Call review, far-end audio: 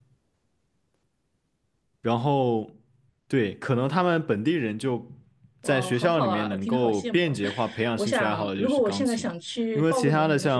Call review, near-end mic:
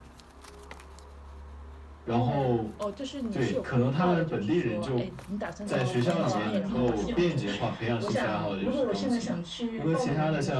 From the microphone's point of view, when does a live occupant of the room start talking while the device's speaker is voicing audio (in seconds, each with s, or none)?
2.0 s